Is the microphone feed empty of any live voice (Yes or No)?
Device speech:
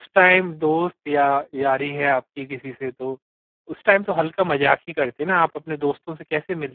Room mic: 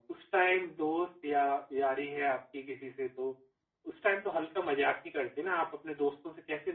Yes